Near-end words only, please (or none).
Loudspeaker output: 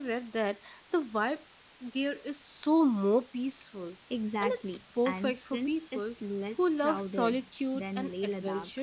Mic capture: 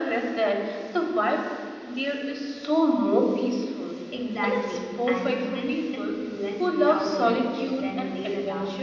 none